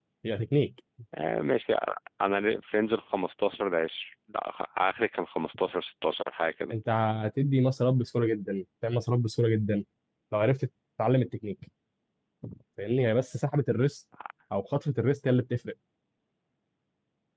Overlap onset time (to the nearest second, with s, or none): none